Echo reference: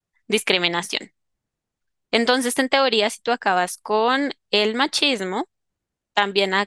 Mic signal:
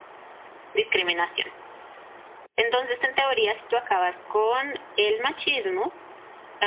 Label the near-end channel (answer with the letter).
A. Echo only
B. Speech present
A